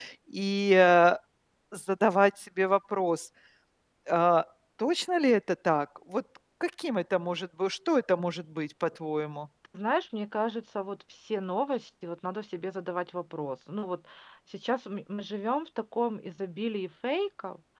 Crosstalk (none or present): none